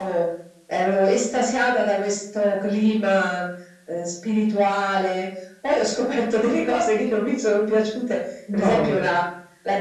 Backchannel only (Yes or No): Yes